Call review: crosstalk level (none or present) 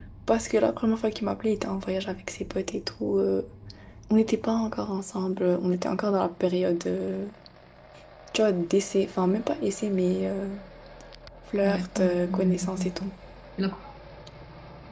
present